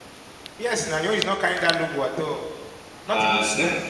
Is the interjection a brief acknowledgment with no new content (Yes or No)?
No